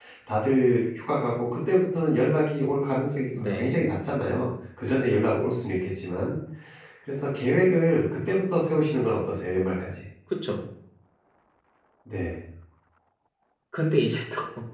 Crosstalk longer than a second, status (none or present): none